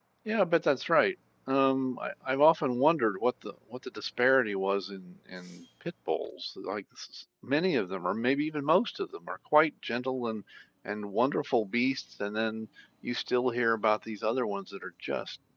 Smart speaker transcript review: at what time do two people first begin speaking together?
none

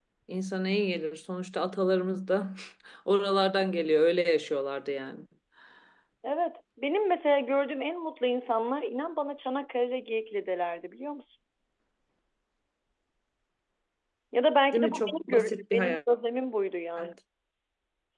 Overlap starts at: 14.7 s

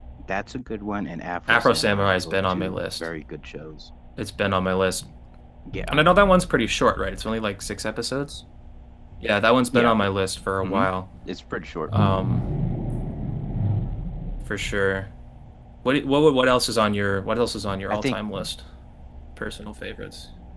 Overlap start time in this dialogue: 1.5 s

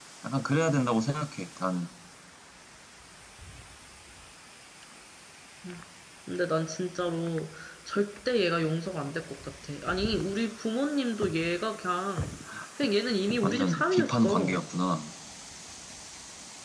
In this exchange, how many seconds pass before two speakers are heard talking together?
13.4 s

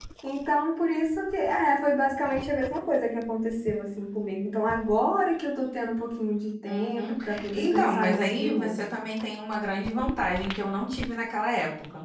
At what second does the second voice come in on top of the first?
6.7 s

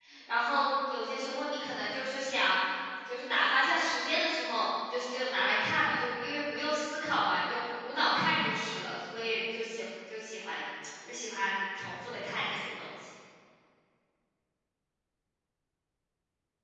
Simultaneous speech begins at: none

